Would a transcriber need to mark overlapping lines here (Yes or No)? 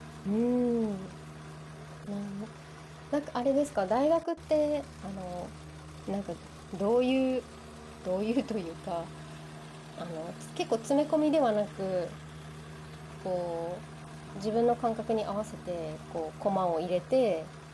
No